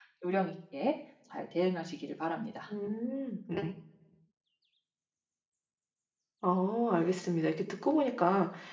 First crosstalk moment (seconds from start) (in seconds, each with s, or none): none